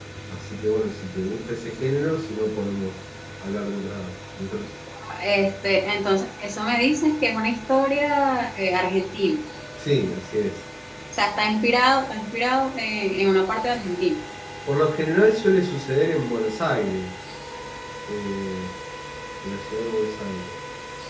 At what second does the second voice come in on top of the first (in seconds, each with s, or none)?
none